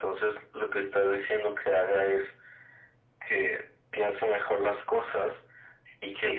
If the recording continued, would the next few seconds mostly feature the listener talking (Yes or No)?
Yes